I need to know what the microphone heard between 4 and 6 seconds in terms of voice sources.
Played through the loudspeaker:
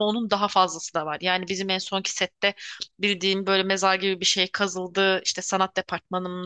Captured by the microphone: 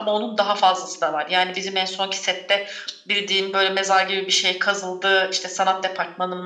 echo only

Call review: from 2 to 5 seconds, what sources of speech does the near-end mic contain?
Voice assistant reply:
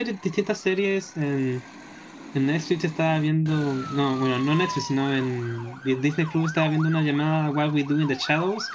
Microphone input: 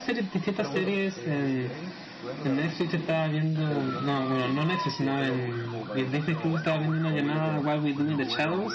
both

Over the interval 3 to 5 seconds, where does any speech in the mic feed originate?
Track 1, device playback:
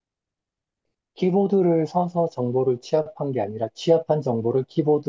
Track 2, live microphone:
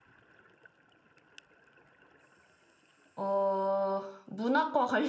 user only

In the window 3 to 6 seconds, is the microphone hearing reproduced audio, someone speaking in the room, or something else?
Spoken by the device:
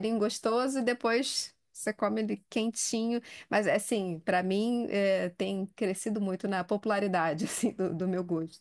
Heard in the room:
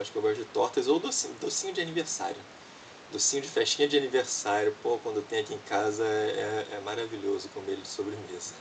user only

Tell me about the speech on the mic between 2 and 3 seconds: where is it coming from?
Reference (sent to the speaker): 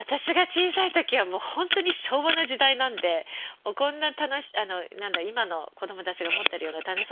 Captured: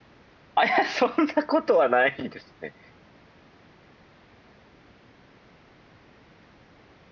user only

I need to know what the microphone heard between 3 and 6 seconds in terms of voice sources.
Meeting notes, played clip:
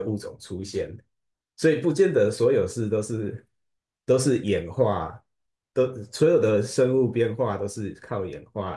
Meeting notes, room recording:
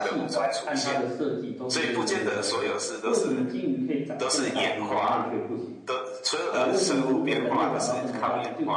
both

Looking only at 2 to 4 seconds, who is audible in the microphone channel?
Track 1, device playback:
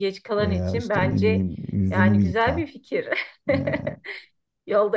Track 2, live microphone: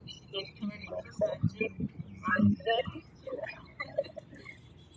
echo only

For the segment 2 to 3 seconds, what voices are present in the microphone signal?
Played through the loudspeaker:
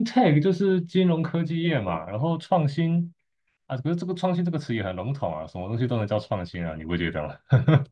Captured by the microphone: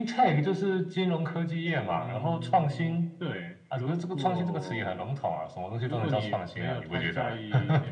both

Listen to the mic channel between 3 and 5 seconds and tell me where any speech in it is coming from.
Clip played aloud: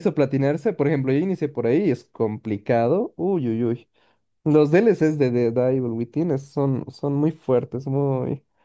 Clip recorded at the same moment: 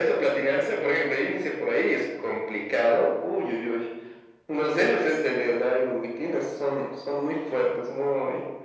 echo only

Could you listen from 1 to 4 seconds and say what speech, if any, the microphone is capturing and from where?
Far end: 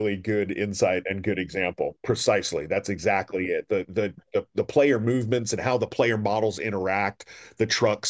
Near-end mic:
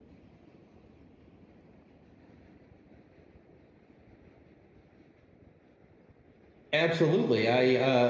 neither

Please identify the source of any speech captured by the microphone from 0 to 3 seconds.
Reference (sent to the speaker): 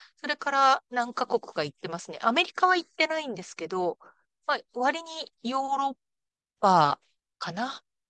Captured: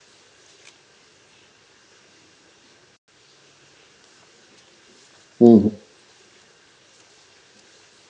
neither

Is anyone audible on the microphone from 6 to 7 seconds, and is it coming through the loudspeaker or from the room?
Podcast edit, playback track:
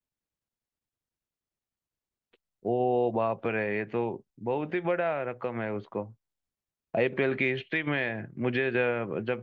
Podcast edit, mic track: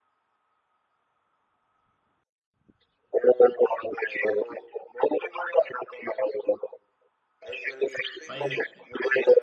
echo only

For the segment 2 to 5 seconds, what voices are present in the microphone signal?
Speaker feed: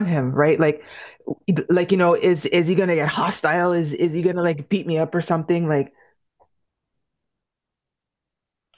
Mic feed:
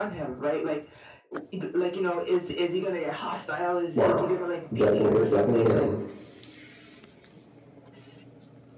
both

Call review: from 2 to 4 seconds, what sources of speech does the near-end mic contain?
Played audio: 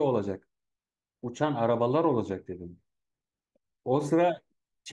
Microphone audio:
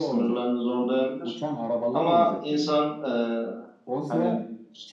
both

